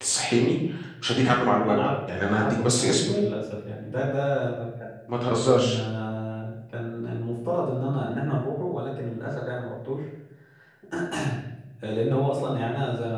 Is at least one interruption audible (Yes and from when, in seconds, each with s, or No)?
Yes, from 1.6 s